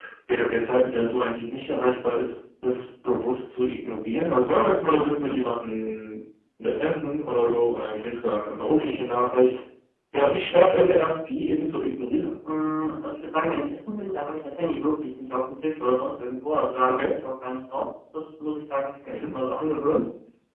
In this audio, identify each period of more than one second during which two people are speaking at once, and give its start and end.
none

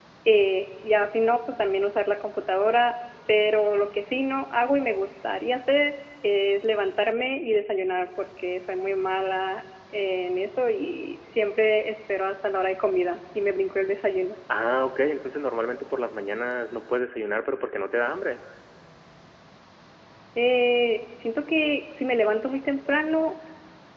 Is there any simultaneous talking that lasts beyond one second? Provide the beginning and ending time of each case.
none

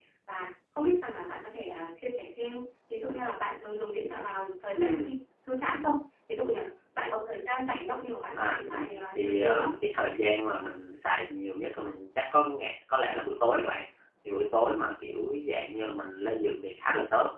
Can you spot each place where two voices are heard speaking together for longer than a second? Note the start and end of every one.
8.4-9.7

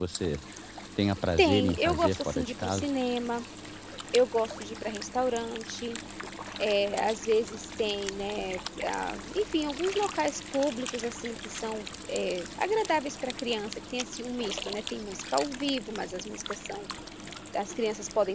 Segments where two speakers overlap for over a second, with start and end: 1.4-2.9

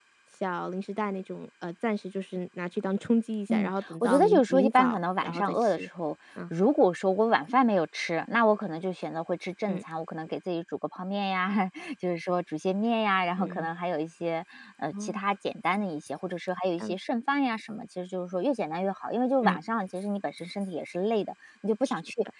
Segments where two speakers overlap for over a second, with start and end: 3.5-5.9

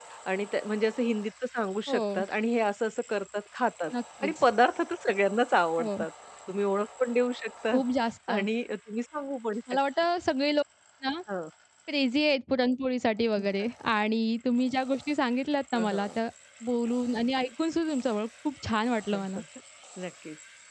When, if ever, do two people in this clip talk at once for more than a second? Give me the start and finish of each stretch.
none

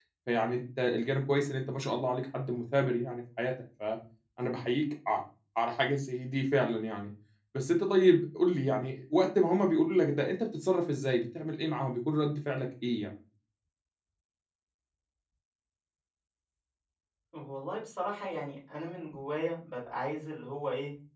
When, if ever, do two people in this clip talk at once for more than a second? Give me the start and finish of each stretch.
none

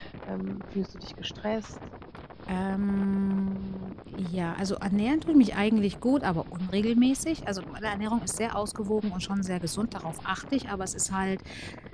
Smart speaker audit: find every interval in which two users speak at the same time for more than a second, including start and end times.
none

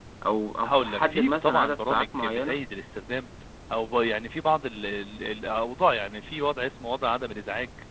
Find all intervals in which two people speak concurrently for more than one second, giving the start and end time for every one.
0.6-2.6

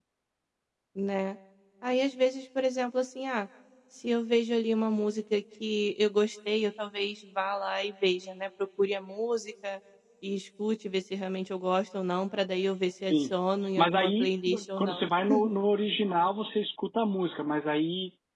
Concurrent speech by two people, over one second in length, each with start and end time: 13.8-15.0

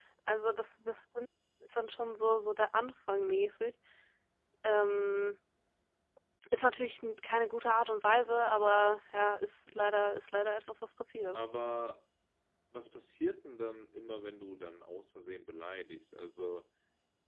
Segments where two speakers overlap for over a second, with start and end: none

